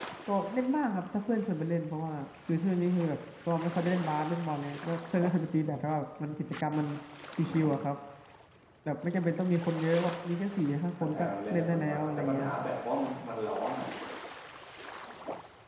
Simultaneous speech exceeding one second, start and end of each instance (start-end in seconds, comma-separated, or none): 11.0-12.5